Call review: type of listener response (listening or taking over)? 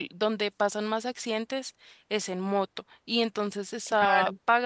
listening